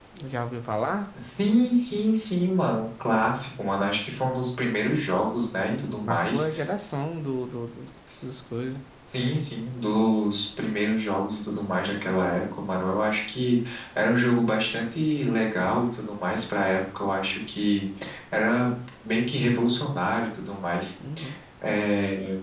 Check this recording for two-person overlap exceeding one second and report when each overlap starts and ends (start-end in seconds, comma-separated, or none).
5.1-6.5